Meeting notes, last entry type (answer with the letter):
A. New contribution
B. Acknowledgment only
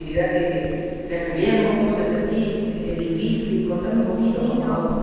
A